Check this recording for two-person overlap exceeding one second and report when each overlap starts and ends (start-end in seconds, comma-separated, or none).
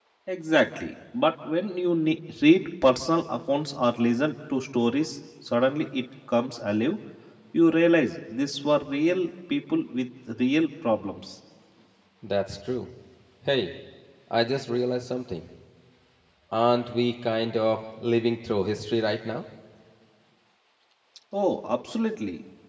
none